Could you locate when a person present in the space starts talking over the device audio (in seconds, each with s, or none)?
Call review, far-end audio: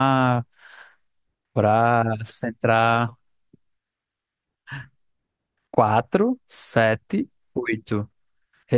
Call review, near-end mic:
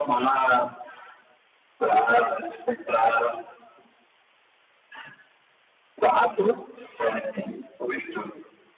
none